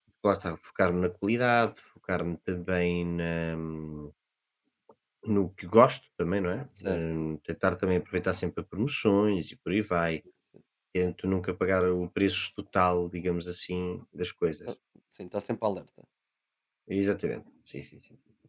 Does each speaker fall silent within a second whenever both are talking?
Yes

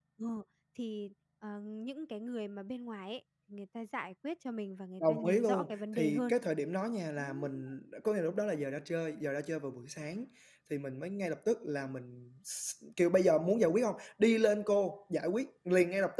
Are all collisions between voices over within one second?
No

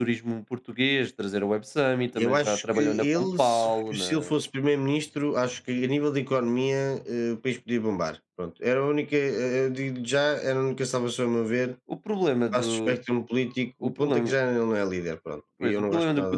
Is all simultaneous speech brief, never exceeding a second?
No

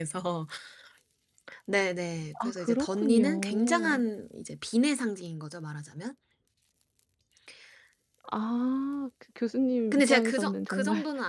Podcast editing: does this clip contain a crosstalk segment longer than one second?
Yes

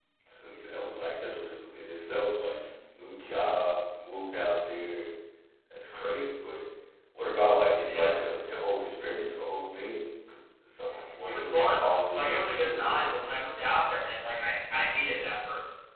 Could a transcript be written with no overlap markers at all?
No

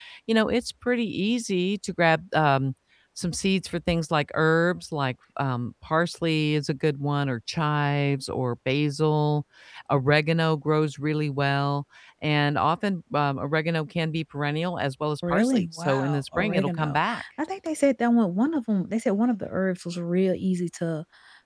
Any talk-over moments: Yes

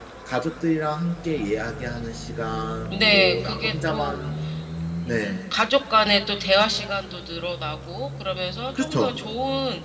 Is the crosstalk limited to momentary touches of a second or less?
No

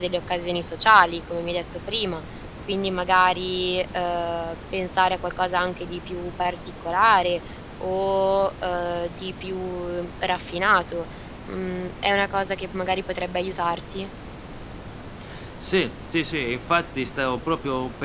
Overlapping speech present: No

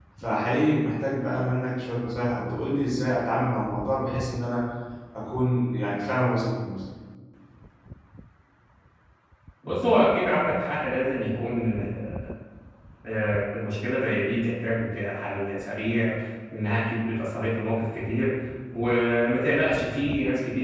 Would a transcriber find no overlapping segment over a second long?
Yes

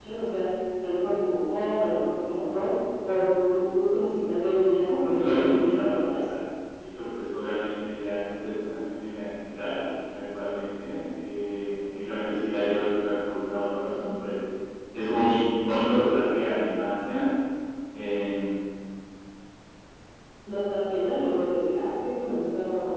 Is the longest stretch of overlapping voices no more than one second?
No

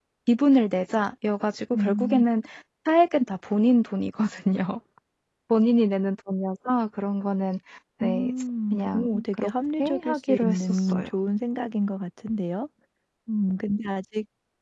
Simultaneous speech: Yes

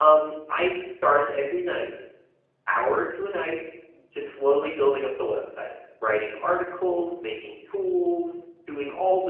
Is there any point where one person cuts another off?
No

